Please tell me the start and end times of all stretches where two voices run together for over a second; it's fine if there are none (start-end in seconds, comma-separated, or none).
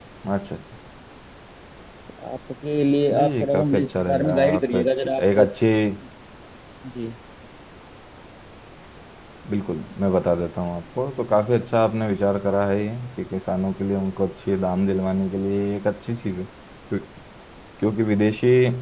3.1-5.2